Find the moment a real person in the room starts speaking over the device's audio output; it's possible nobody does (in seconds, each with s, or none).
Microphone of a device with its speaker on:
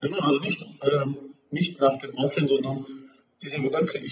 none